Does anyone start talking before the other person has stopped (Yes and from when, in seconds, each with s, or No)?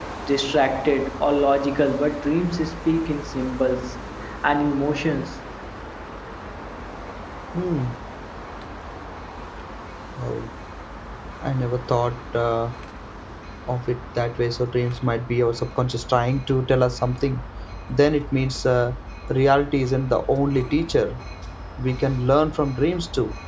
No